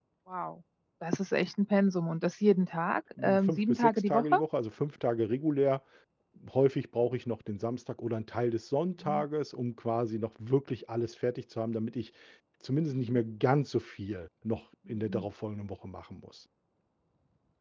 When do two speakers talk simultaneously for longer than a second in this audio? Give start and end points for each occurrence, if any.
3.2-4.4

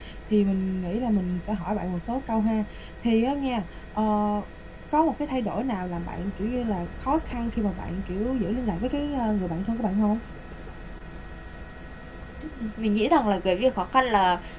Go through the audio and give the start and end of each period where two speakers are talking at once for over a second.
none

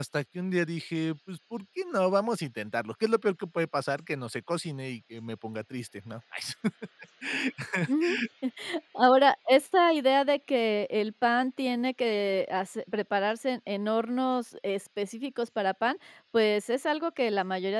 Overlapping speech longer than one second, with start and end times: none

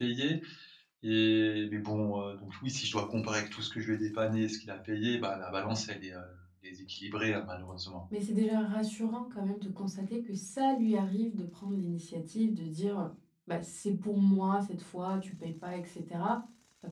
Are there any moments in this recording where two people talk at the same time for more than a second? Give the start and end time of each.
none

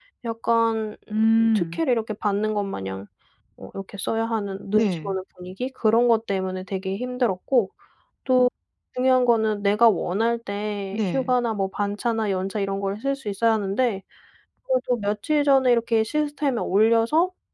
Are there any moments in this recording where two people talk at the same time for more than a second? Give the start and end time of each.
none

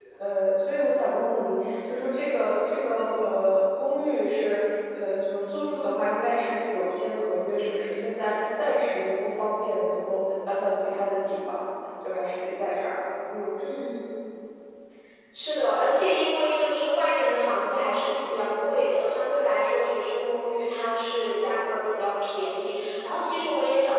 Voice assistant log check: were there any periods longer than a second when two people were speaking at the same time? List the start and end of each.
none

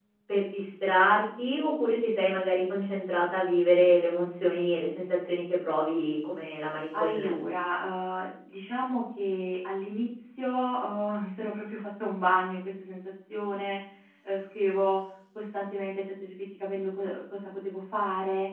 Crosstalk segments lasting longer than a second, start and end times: none

